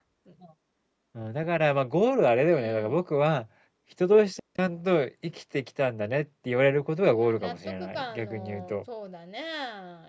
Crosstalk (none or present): present